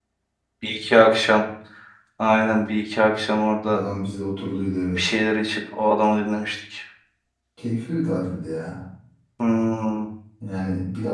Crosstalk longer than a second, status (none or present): none